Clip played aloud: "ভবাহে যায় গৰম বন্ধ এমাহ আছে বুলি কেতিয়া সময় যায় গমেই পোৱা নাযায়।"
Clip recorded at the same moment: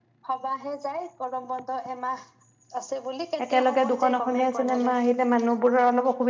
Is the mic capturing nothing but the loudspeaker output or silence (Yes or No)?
No